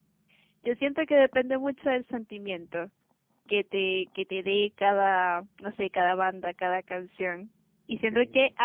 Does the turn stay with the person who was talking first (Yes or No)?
Yes